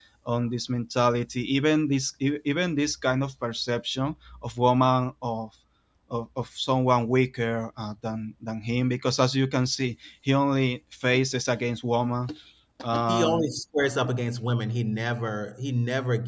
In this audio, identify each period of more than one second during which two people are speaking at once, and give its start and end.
none

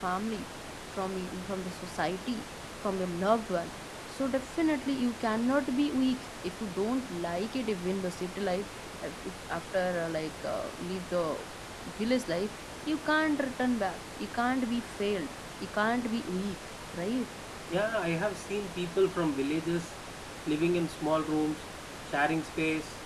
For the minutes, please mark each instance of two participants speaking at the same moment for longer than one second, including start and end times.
none

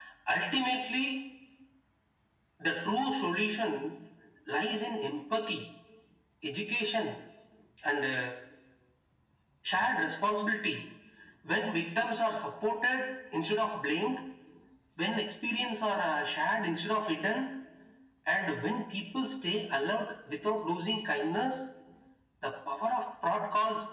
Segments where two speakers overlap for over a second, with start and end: none

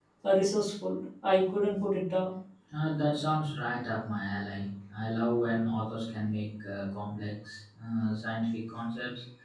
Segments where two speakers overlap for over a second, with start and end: none

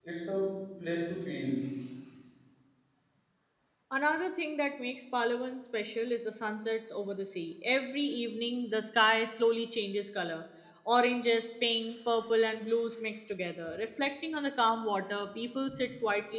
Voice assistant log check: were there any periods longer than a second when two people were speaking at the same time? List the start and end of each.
none

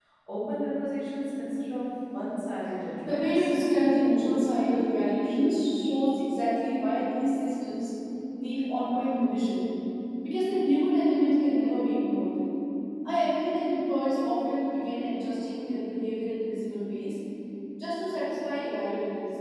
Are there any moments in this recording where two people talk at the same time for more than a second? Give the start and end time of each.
none

